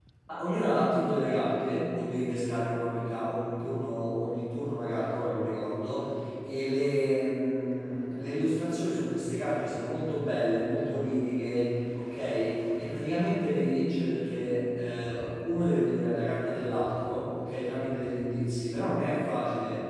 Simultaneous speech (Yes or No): No